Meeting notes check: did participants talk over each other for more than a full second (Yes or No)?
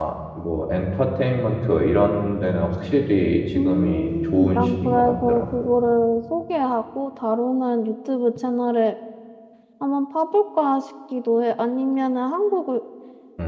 Yes